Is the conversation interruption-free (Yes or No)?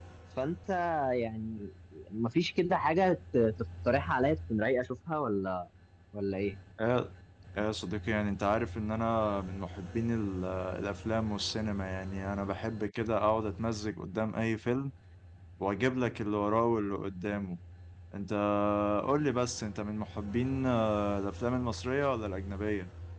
Yes